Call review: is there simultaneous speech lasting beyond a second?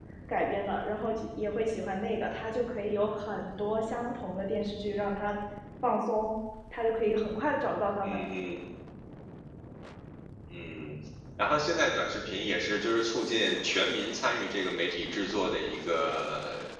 No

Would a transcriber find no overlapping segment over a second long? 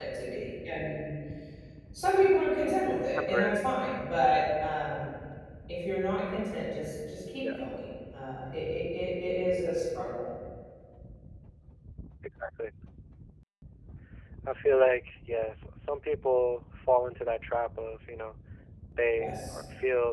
Yes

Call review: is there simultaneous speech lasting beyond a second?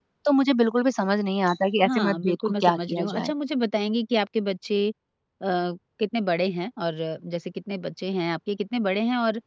Yes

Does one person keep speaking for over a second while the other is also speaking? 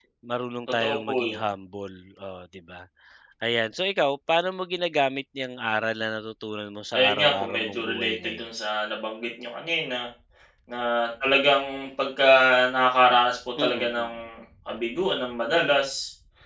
Yes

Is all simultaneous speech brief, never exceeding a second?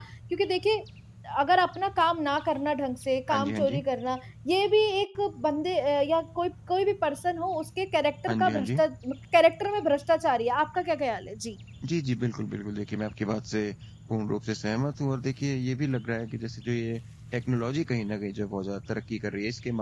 Yes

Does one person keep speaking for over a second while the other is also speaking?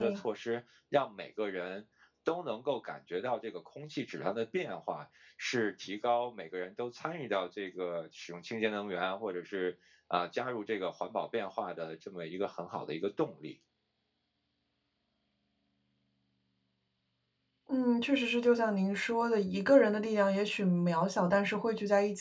No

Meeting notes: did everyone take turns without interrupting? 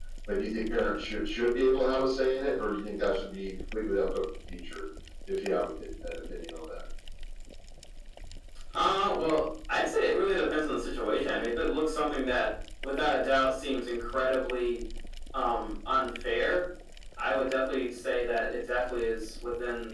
Yes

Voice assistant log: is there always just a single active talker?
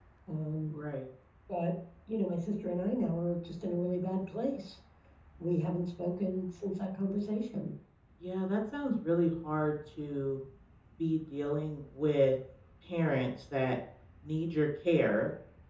Yes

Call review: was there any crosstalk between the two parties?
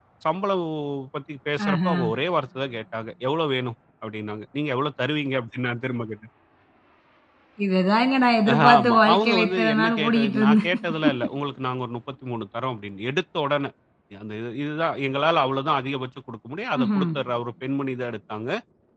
Yes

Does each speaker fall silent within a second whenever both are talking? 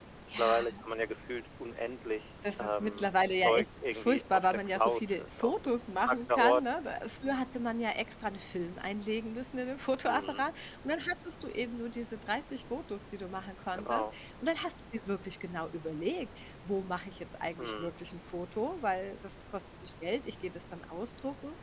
No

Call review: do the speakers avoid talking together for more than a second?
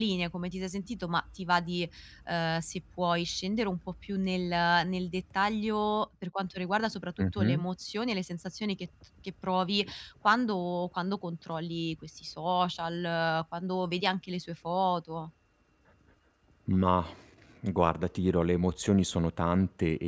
Yes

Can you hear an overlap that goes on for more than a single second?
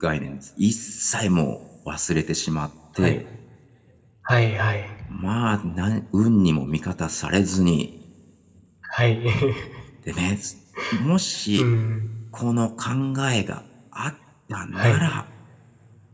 No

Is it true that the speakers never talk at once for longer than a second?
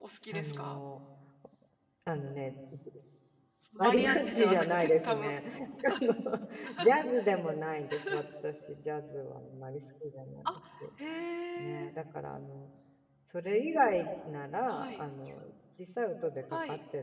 No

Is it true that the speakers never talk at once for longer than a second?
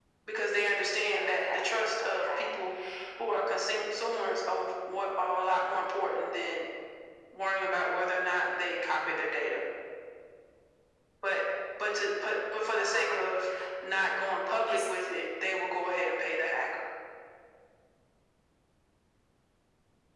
No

